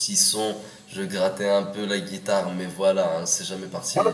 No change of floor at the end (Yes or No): No